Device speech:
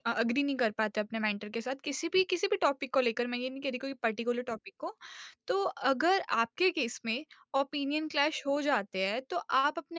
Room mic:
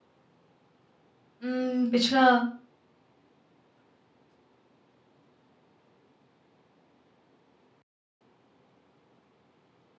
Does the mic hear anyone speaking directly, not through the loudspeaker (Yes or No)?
Yes